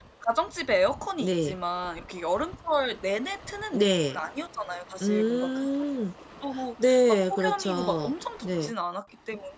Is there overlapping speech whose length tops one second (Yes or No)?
Yes